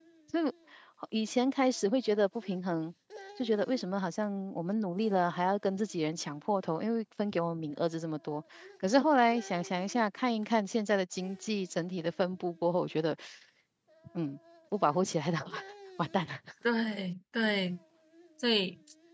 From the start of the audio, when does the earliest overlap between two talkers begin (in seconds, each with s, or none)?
none